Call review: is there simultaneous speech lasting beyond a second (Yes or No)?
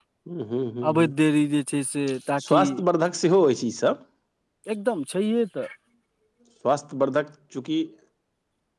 No